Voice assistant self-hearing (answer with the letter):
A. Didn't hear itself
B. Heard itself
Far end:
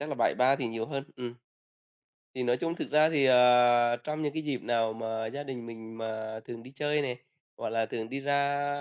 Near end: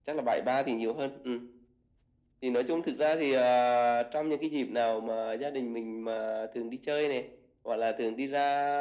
B